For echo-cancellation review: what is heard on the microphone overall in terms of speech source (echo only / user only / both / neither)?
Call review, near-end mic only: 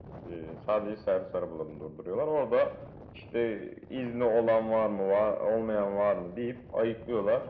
echo only